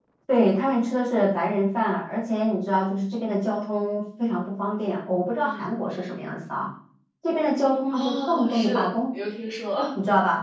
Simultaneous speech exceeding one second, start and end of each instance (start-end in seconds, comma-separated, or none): 7.9-9.1